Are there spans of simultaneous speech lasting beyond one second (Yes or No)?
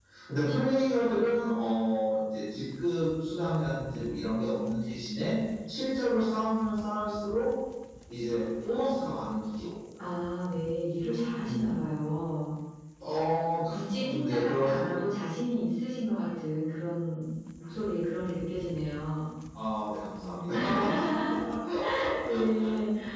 Yes